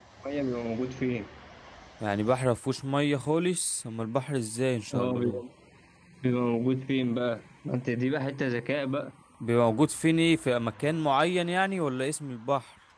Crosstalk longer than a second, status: none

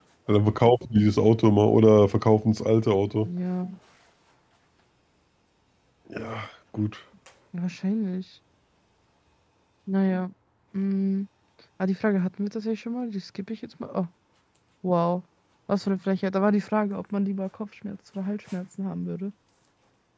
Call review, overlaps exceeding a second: none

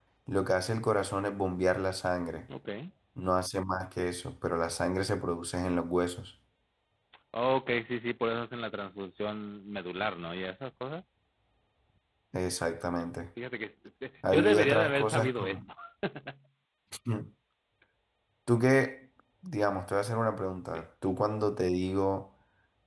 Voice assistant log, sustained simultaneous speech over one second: present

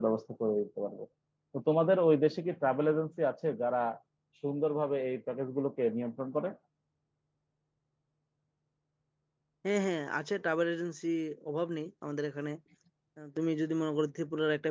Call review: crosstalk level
none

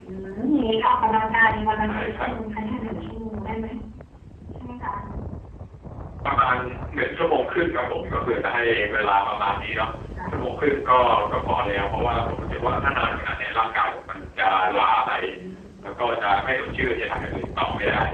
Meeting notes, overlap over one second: none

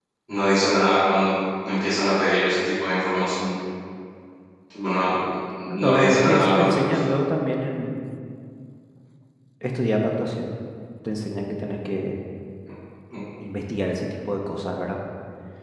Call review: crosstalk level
present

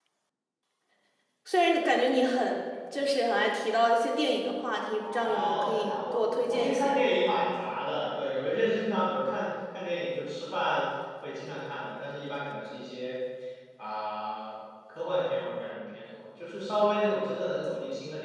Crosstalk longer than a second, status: present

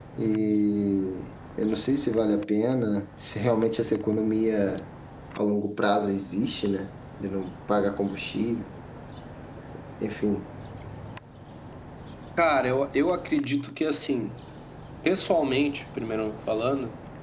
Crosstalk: none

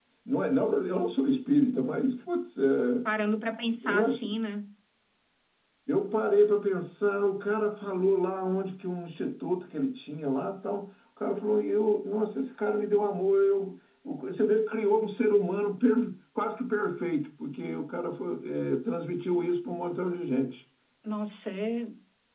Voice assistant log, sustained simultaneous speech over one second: none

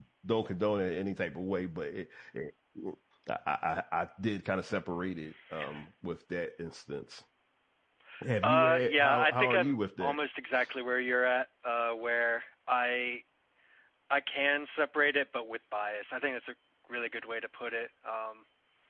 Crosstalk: present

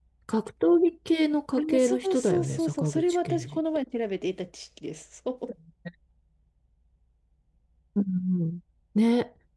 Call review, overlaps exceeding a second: present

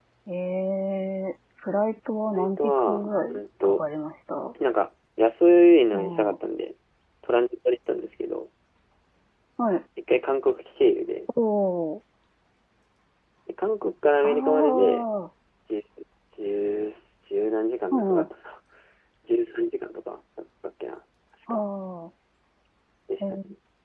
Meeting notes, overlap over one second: present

